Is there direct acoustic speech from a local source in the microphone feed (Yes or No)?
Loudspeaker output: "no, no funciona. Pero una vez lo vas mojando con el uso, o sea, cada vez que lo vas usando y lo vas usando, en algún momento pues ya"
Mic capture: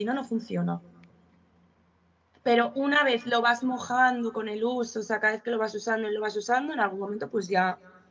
No